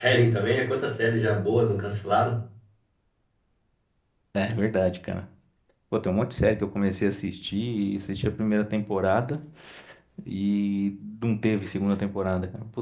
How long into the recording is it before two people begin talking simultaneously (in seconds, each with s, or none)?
none